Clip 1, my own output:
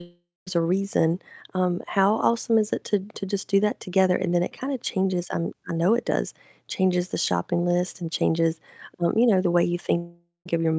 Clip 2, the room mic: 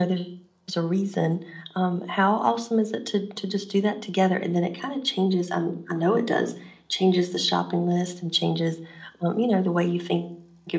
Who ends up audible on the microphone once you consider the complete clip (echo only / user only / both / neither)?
echo only